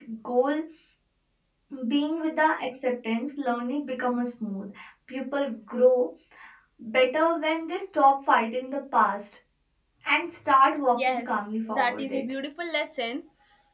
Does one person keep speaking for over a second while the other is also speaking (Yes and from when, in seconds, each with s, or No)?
Yes, from 11.0 s